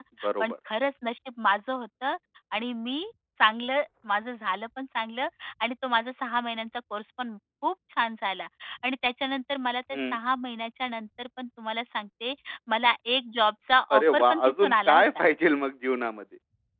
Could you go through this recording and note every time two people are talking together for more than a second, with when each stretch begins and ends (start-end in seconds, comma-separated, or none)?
13.9-15.2